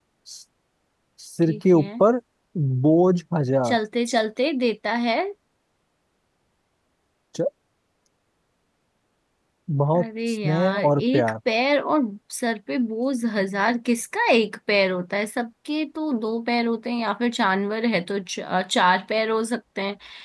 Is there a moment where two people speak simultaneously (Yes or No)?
Yes